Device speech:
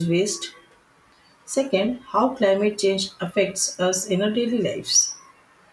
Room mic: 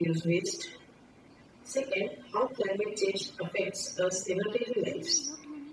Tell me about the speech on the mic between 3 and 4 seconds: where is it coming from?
echo only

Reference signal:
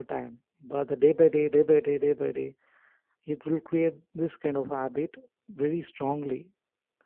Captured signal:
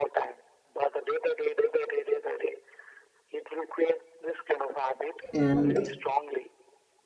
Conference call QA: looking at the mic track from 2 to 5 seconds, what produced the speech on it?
echo only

